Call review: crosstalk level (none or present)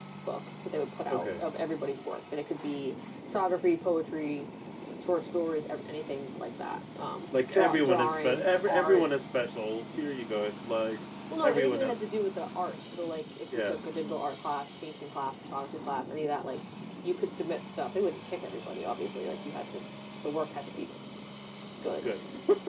present